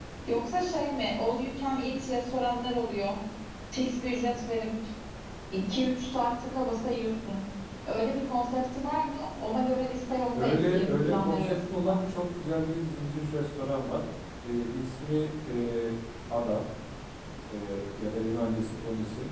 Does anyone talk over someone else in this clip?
Yes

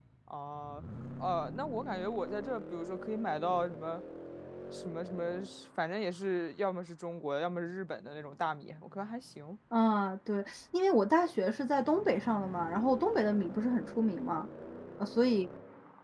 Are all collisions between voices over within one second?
Yes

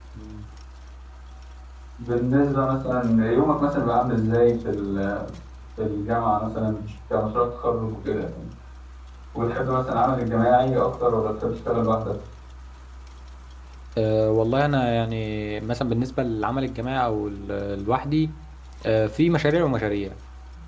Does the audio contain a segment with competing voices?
No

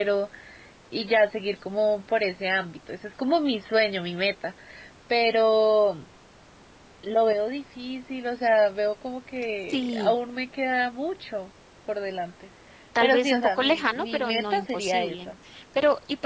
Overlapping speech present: Yes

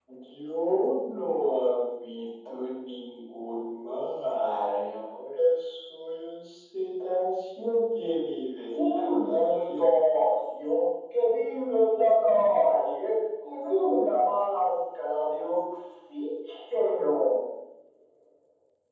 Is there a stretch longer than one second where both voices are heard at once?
Yes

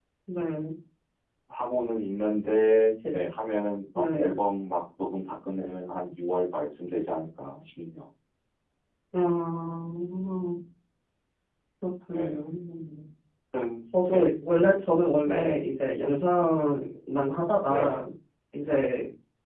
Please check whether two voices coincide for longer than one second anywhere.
No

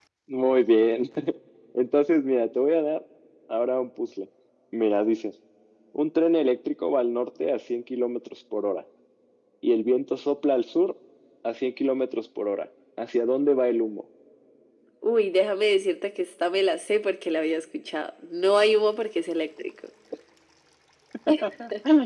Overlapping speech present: No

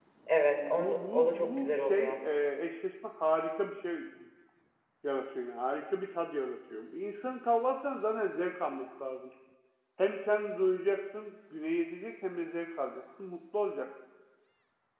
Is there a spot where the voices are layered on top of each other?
Yes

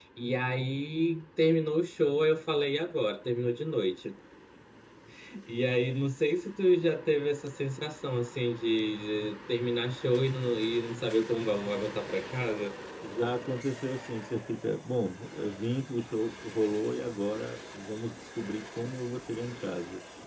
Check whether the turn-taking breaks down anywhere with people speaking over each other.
No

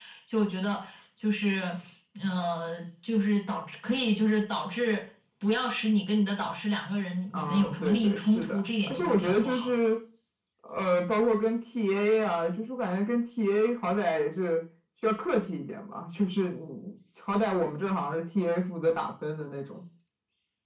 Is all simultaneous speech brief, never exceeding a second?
No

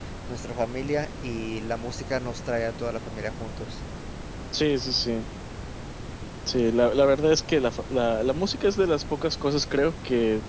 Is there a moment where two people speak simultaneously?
No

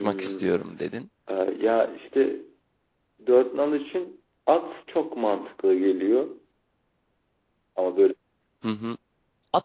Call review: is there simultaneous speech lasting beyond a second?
No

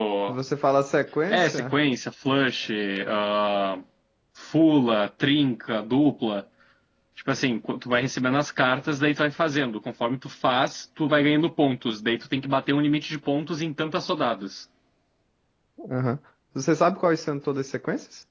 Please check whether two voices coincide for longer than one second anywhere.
No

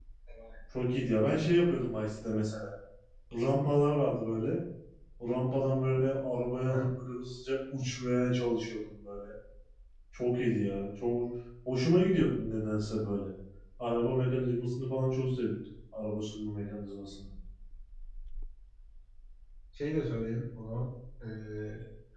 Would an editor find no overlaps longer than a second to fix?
Yes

